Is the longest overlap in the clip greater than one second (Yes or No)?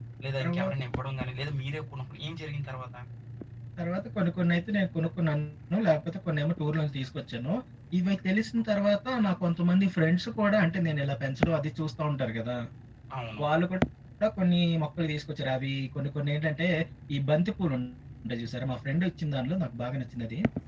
No